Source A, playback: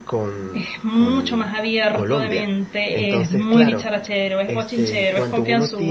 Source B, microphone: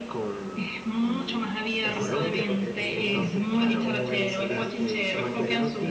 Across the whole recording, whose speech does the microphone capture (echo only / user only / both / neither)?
both